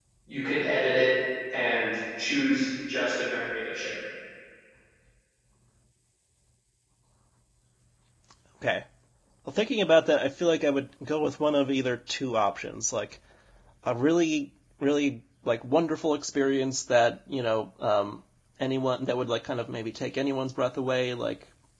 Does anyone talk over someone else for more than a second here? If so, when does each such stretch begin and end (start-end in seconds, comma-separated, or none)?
none